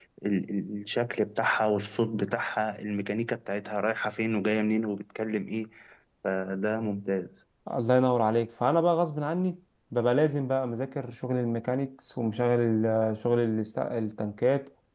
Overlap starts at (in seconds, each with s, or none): none